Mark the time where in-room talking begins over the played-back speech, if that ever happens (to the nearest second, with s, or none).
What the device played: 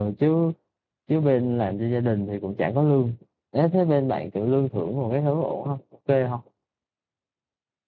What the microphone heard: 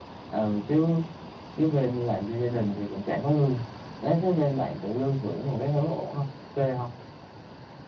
none